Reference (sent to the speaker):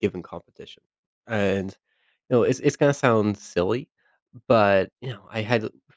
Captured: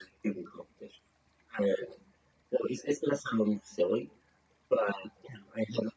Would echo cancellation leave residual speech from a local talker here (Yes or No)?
No